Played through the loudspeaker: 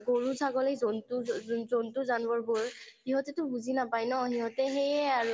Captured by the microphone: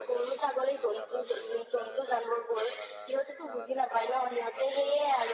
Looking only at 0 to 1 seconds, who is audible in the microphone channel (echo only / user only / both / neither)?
both